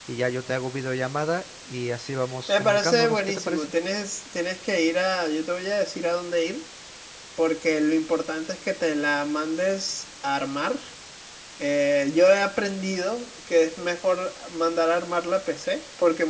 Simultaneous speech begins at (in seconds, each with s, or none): 2.5 s